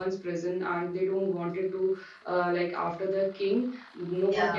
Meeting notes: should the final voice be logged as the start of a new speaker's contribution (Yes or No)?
No